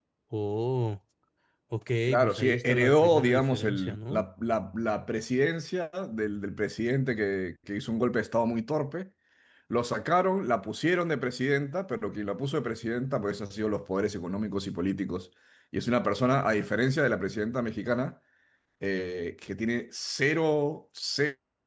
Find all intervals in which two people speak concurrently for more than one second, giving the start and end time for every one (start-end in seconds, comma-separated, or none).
2.1-4.2